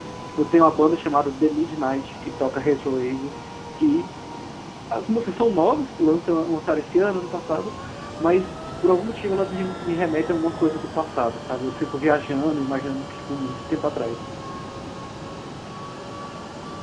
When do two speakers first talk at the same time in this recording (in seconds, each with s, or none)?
none